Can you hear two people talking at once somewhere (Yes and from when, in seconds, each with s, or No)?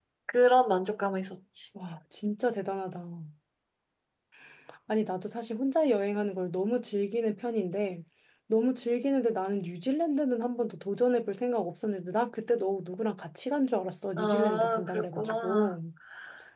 Yes, from 14.2 s